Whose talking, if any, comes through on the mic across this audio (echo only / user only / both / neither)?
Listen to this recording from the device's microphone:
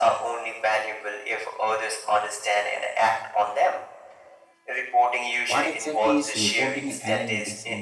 both